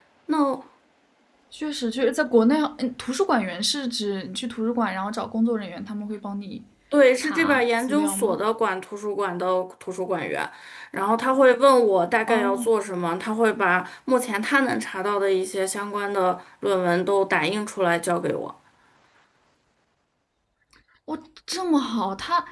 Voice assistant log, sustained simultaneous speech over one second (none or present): present